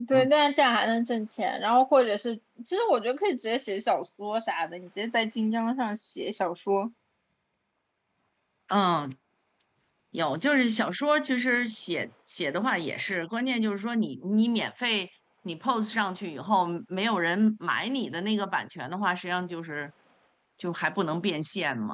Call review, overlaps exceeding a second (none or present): none